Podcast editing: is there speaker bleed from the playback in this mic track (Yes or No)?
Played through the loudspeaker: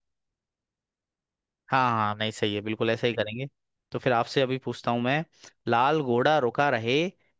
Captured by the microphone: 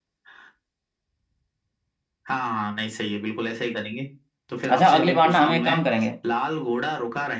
Yes